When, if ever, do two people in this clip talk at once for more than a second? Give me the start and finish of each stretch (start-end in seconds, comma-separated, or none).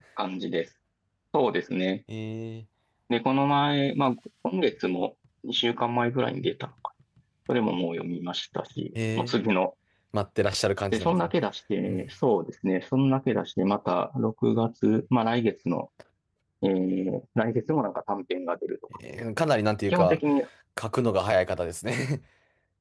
none